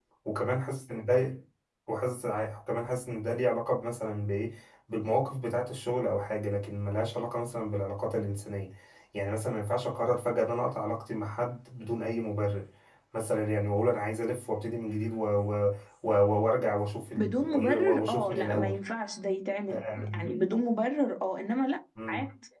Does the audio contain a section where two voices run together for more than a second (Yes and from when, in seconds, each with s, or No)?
Yes, from 17.2 s